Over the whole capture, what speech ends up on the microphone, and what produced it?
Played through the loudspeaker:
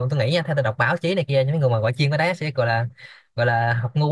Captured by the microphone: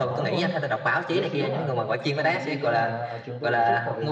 both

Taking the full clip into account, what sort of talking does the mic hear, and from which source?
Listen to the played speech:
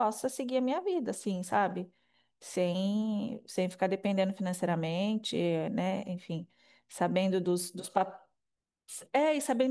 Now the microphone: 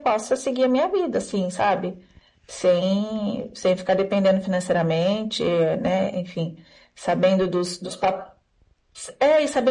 echo only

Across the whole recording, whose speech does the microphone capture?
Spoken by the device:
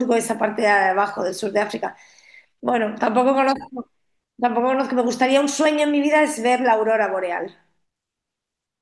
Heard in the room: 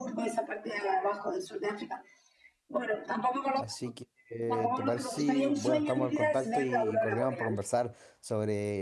both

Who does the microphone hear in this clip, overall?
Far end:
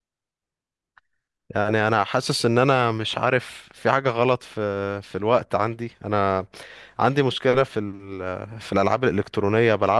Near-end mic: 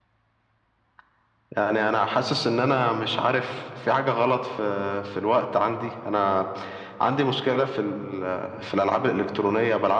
echo only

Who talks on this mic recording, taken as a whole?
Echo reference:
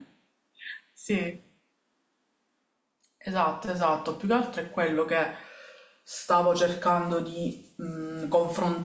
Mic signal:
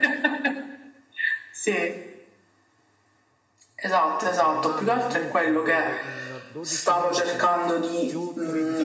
both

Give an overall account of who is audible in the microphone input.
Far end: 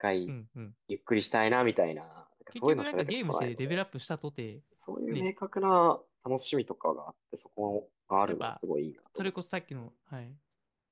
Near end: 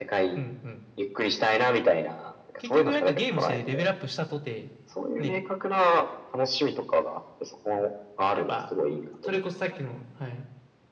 echo only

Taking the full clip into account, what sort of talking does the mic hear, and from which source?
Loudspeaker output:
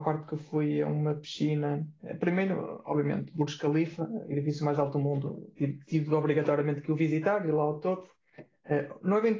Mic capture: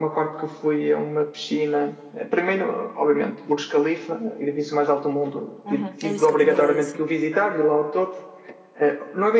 both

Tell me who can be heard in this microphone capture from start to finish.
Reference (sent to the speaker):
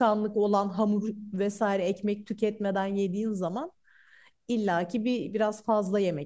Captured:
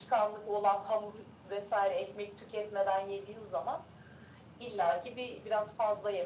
echo only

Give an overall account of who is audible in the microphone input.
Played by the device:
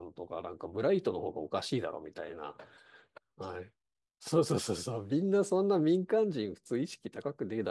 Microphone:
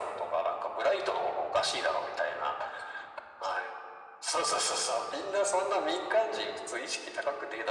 echo only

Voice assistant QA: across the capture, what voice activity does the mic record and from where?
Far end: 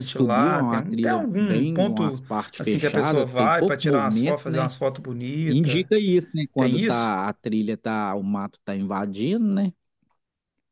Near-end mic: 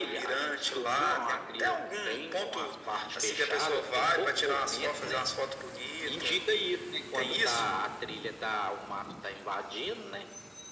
echo only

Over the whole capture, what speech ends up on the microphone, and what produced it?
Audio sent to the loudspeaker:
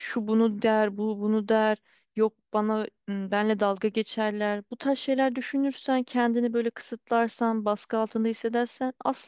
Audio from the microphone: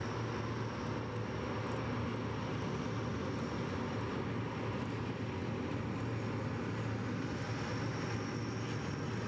neither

